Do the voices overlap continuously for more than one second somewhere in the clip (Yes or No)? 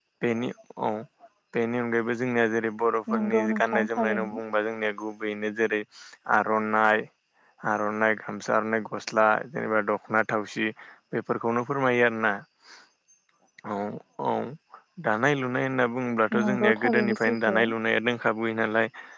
Yes